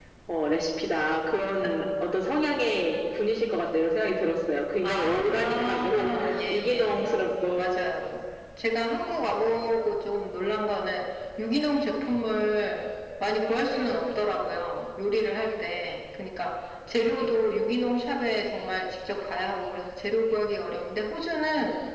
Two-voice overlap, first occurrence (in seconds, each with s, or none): 4.8 s